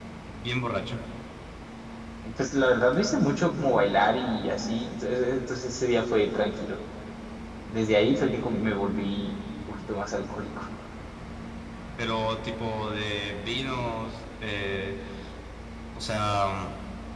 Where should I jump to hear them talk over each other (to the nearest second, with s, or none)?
none